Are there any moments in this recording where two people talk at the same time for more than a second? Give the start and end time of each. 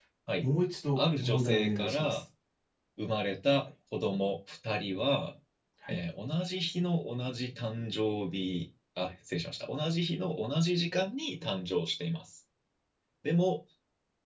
1.0-2.2

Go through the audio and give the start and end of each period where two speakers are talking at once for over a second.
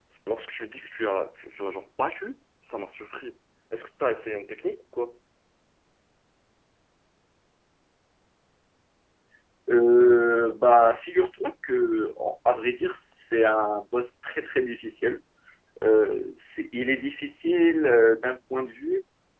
none

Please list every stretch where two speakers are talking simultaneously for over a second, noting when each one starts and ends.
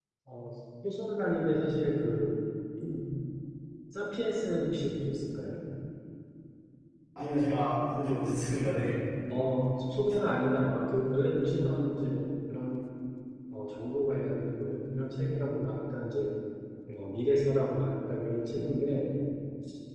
none

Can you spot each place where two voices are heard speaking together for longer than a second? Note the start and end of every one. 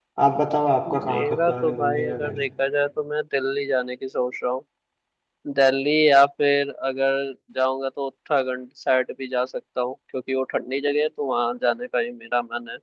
1.1-2.5

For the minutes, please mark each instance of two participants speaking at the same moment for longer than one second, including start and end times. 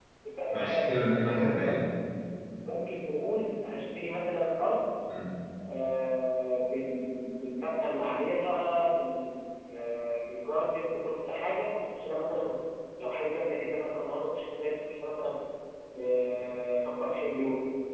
0.5-1.9

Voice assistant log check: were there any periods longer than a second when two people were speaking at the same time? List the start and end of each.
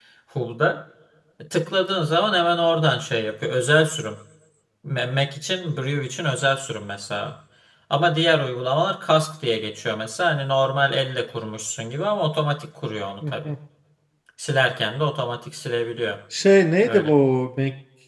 none

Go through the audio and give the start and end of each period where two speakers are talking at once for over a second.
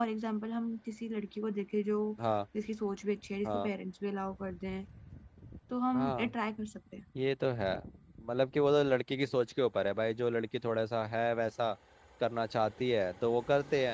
none

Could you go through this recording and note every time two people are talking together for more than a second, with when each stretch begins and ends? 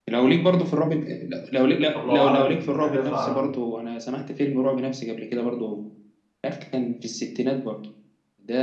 2.0-3.5

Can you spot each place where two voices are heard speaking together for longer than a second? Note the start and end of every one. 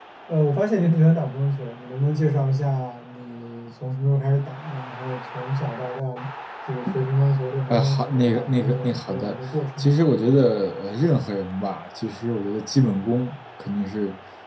7.7-9.4

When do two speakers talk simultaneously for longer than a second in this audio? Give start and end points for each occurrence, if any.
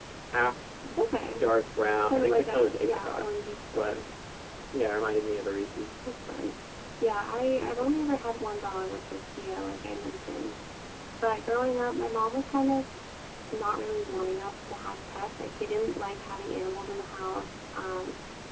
2.0-3.3

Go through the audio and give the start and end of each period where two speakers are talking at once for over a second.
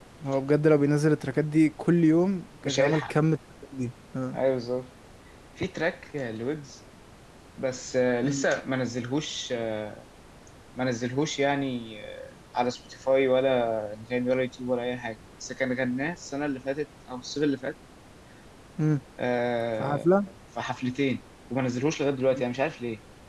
none

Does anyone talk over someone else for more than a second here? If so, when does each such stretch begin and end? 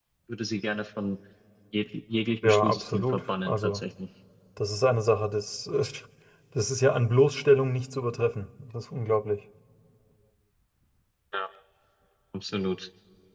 2.4-3.8

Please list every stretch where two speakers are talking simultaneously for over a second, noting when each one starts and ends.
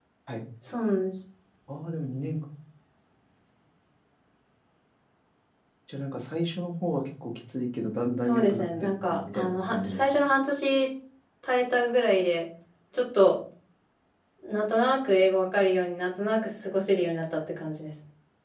8.2-10.2

